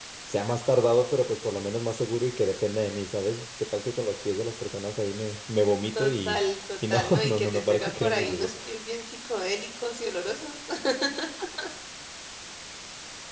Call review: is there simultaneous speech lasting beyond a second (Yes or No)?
Yes